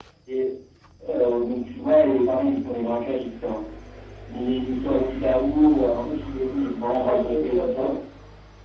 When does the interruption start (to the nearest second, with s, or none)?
6 s